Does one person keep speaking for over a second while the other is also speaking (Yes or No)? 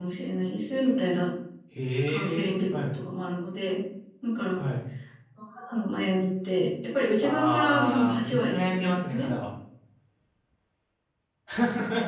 Yes